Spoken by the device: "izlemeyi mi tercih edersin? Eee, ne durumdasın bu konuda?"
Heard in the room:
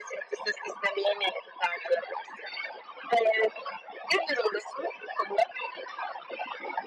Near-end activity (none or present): none